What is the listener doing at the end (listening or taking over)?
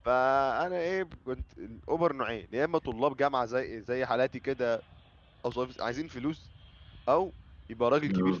listening